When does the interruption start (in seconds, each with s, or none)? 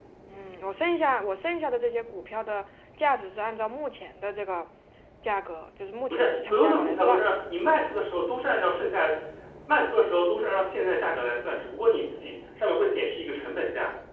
6.1 s